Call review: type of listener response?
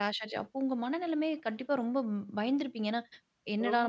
listening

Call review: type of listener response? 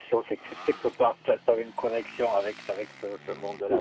taking over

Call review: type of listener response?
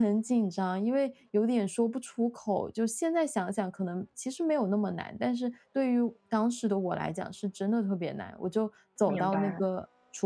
listening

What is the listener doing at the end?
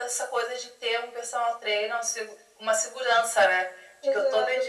taking over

